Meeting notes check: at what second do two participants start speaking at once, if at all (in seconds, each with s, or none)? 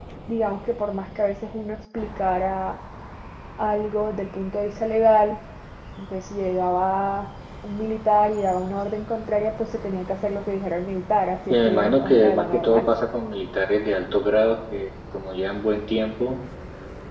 11.5 s